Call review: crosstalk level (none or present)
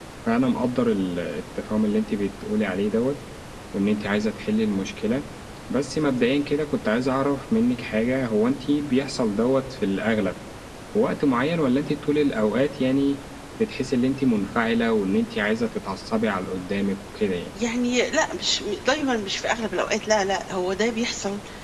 none